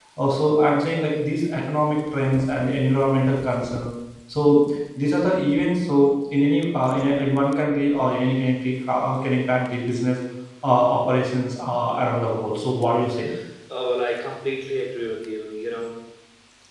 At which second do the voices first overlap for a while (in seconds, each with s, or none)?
none